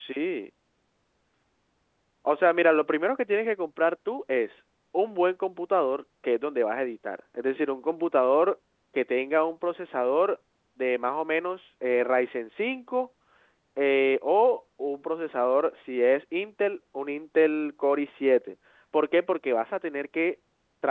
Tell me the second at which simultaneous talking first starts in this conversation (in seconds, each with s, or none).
none